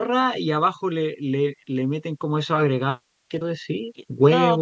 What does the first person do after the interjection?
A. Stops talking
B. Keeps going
A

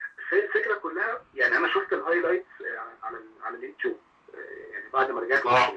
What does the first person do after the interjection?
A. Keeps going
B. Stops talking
A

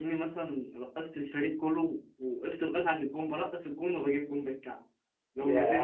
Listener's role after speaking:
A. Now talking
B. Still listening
A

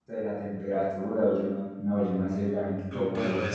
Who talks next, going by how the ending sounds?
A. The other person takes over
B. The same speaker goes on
A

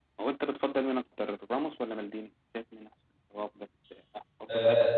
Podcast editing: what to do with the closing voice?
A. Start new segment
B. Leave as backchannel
A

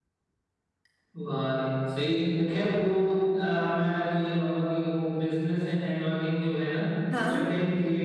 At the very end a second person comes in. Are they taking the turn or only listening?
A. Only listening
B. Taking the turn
A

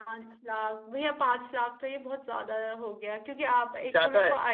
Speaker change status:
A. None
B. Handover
A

